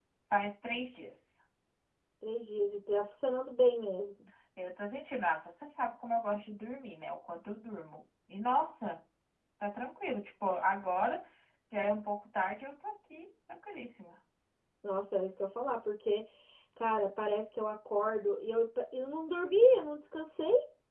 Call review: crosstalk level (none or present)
none